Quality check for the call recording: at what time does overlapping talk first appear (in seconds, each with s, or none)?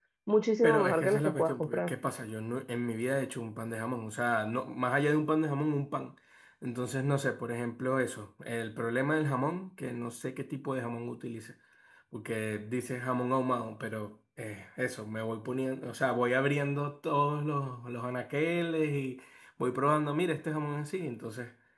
0.6 s